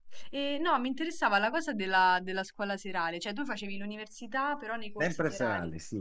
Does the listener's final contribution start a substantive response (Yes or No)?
Yes